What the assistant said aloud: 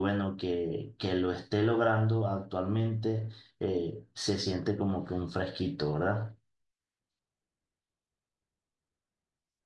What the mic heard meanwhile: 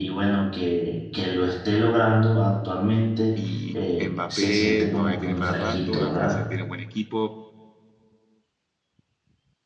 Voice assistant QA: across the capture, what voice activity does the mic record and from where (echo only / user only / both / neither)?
both